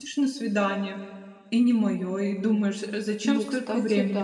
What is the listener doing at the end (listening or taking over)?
taking over